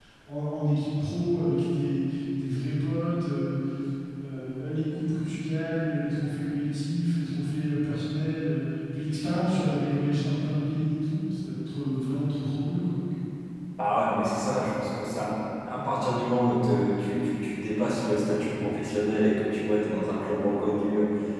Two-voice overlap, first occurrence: none

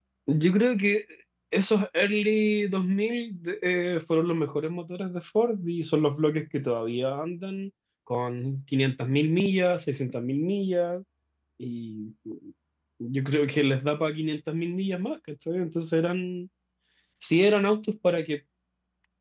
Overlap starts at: none

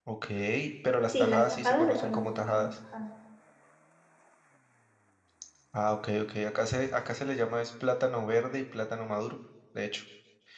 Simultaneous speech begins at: 1 s

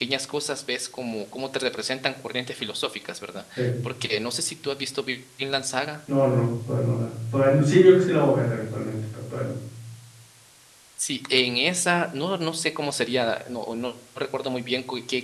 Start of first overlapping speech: none

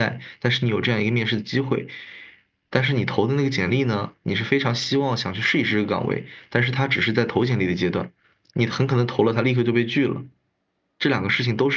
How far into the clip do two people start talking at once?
none

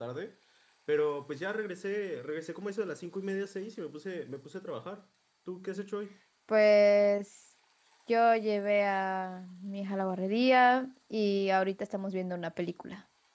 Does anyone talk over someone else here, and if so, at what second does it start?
none

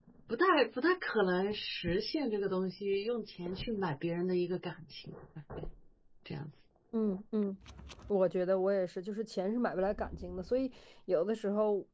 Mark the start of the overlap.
none

